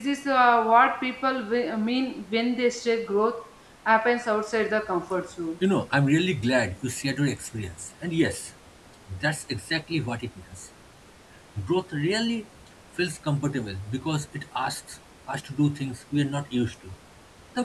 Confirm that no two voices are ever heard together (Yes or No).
Yes